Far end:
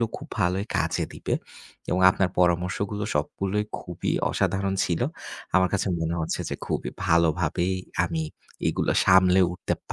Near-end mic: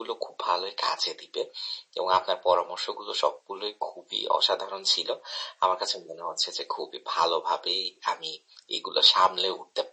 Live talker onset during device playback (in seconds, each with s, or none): none